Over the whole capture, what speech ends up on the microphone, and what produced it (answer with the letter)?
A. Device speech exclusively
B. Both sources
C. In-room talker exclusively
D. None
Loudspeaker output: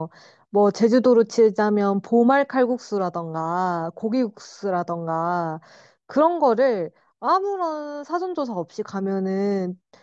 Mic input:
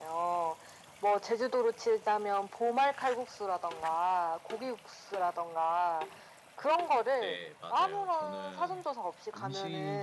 B